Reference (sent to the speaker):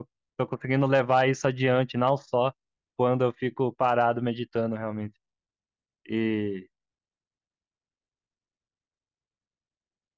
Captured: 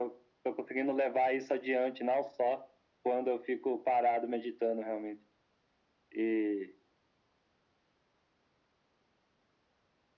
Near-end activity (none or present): none